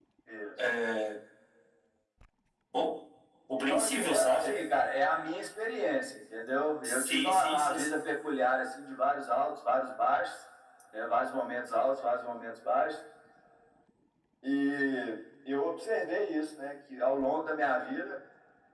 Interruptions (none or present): present